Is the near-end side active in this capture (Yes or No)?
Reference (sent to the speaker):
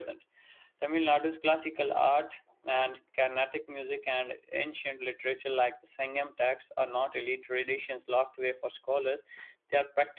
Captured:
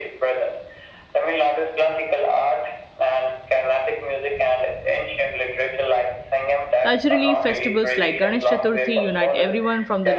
Yes